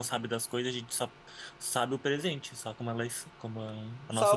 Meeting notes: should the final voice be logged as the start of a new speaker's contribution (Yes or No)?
Yes